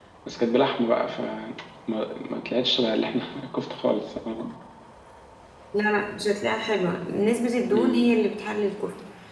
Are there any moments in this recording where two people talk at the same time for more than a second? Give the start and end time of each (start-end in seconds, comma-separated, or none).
none